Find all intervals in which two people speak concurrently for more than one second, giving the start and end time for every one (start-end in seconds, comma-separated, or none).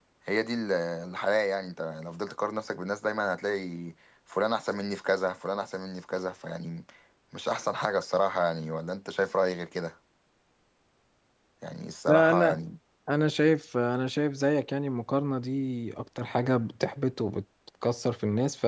none